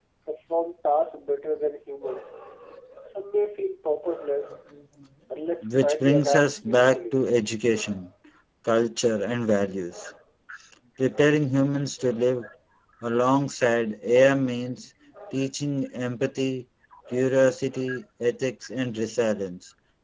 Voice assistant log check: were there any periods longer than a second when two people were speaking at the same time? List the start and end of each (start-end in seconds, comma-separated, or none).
5.6-7.2